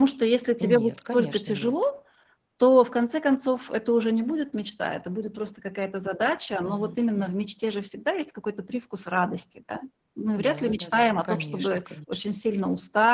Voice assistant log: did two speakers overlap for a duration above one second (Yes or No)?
Yes